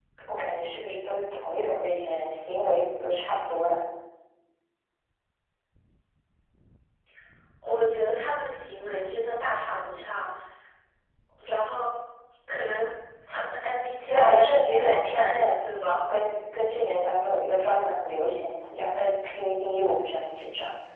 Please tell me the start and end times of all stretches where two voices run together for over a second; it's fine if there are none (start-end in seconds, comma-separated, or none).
14.1-15.5